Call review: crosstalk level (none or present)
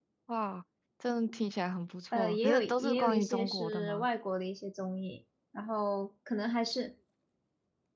present